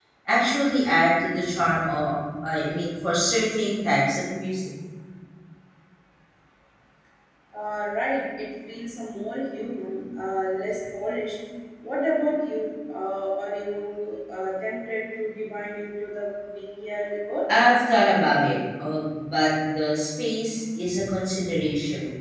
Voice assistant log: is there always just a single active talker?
Yes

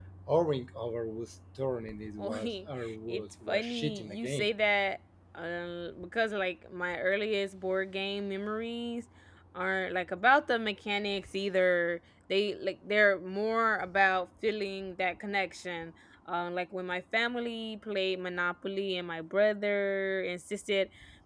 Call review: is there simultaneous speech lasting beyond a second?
Yes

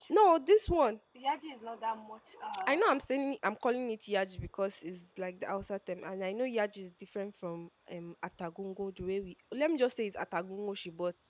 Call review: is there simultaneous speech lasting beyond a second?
No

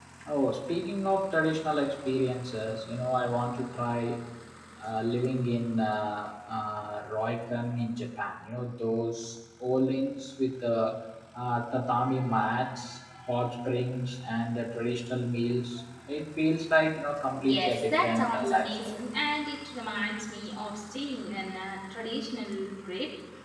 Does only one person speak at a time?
No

